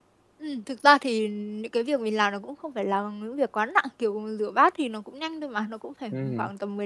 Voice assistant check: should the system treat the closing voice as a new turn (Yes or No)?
No